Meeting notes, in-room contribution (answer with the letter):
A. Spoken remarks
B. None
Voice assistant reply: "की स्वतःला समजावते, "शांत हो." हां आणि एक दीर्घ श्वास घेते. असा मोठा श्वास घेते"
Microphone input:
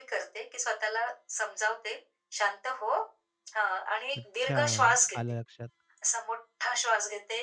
A